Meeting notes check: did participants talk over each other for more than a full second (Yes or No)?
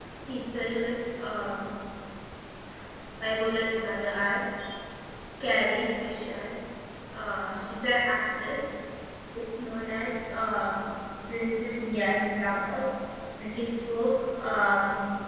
No